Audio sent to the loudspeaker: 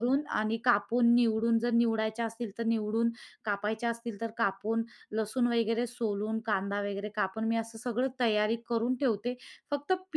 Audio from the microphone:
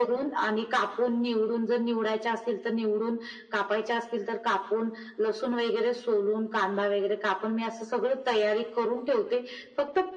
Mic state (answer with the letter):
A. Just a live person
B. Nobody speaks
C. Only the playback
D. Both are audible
C